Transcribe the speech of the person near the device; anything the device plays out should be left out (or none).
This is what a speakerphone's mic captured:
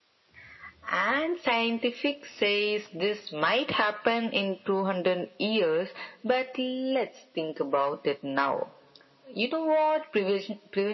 none